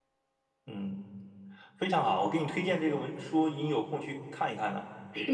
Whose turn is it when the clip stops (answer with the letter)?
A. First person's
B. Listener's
B